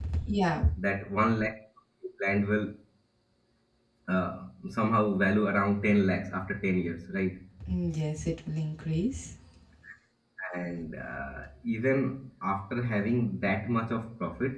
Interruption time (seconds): none

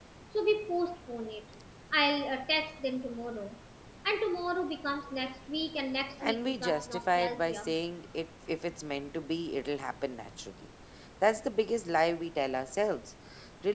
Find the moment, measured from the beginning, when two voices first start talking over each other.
6.2 s

